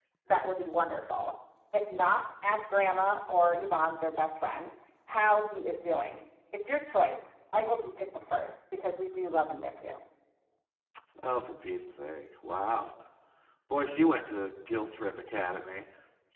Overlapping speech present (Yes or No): No